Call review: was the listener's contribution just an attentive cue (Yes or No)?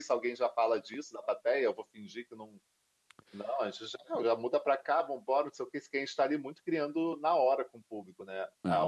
No